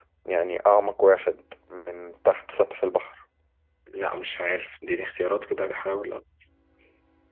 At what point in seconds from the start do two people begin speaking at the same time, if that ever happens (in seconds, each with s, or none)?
none